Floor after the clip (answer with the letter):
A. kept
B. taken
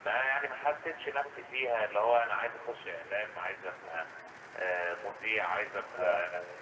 A